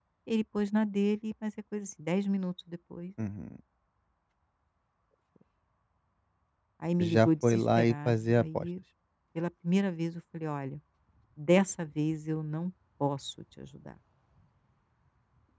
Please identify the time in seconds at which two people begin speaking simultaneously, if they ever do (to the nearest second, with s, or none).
7 s